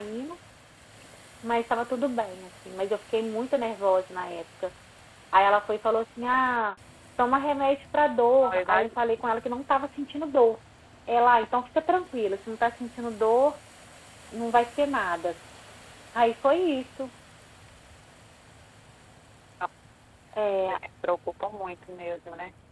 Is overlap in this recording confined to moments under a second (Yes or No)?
Yes